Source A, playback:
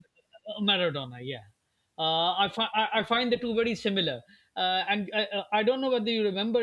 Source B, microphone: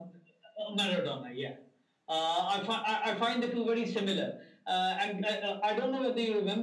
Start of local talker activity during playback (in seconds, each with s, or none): none